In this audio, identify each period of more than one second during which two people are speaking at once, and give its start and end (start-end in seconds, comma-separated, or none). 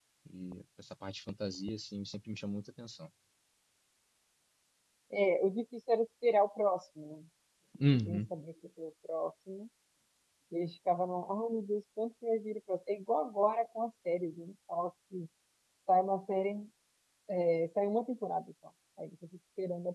none